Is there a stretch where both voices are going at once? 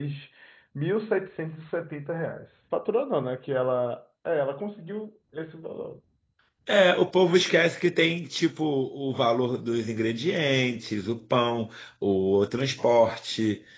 No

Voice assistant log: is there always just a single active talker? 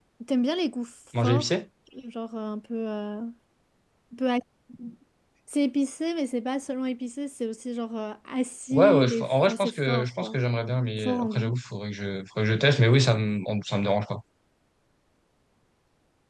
No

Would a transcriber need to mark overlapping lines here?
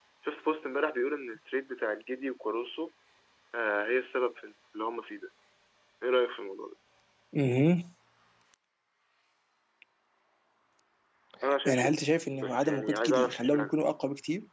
Yes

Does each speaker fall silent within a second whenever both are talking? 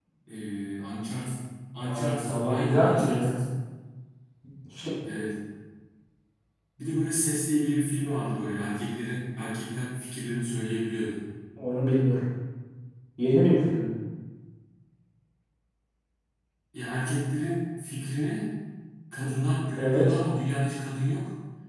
No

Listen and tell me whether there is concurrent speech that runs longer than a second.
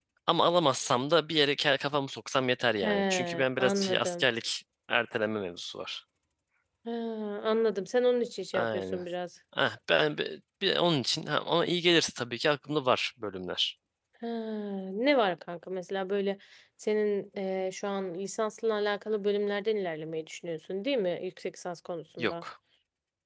Yes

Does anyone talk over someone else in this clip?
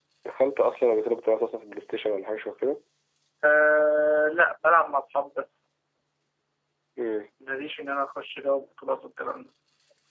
No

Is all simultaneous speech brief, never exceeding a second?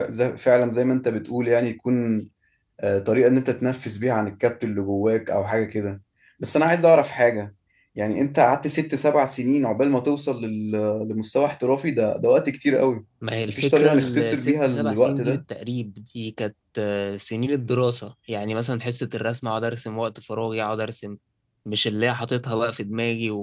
No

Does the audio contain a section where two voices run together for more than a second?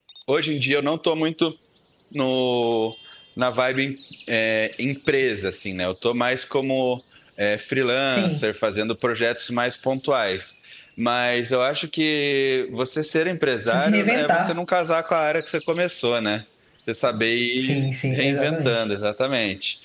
Yes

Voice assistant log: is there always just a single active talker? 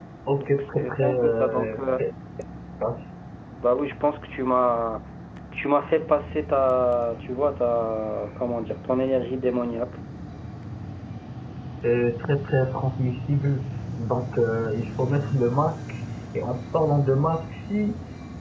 No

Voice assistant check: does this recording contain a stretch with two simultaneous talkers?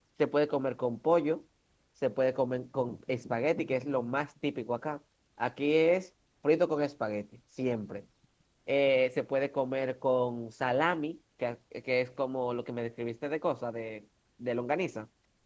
No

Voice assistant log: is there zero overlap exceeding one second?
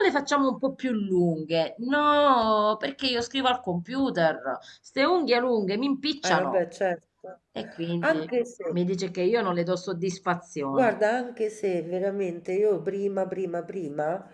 Yes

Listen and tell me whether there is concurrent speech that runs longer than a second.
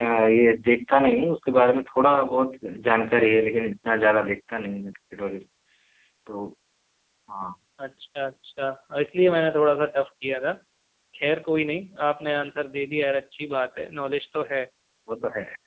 No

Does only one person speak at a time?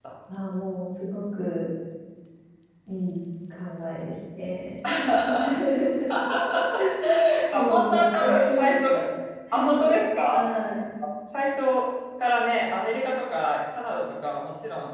No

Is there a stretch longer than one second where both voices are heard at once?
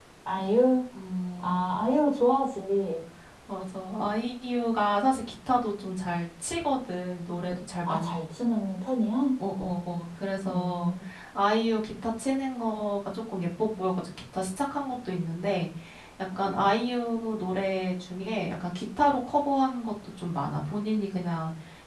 No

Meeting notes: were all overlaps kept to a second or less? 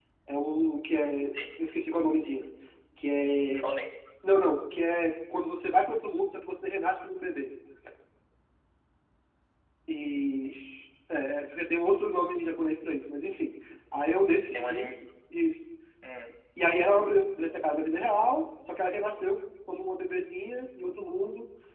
Yes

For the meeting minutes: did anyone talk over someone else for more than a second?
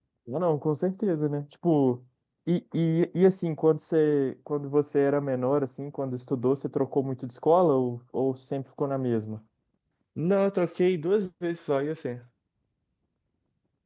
No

